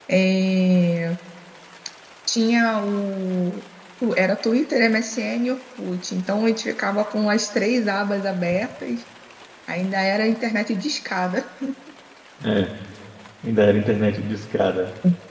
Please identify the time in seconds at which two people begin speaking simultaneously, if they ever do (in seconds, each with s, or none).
none